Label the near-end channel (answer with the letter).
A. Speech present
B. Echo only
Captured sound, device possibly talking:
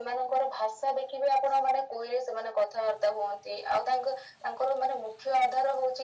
B